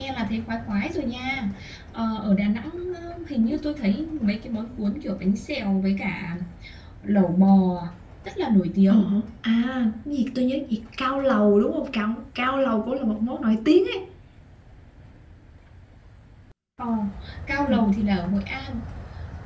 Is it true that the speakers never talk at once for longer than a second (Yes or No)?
Yes